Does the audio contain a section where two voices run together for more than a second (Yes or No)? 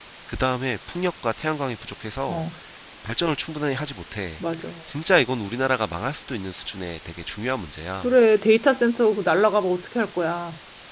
No